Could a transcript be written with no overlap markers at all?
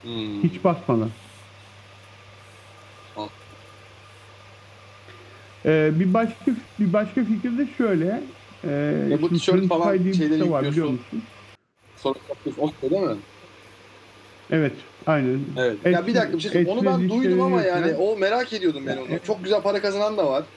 No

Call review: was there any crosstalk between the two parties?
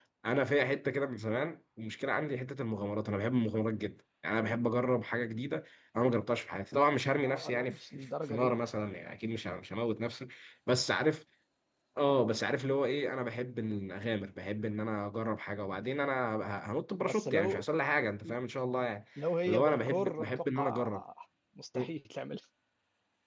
Yes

